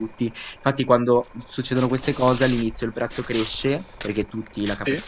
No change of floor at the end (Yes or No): Yes